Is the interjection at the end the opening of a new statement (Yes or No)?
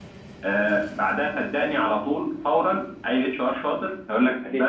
No